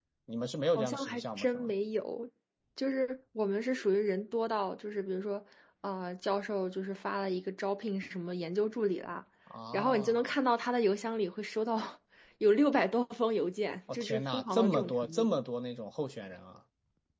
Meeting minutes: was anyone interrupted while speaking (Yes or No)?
Yes